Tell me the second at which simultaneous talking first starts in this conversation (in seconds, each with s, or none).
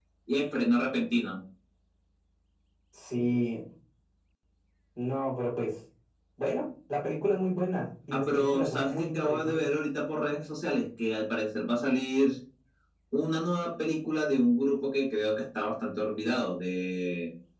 8.1 s